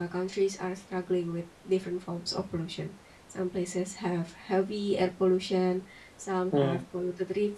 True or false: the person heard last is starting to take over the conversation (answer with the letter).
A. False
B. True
A